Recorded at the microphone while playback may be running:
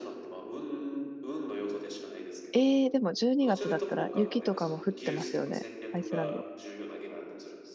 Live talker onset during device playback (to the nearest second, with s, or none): 3 s